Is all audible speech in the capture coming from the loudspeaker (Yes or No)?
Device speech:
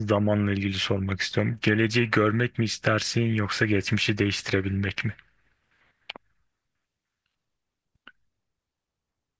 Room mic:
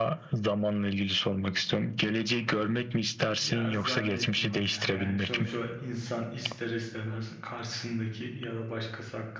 No